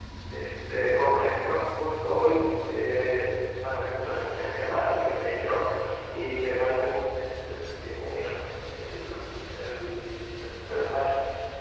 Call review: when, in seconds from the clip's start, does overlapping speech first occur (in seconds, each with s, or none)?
none